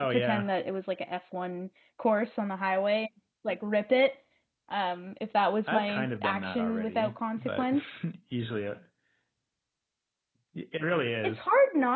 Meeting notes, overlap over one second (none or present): present